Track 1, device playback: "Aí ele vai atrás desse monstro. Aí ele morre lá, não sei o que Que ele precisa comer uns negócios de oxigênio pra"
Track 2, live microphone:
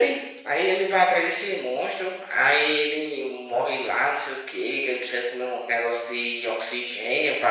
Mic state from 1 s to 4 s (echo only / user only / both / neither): echo only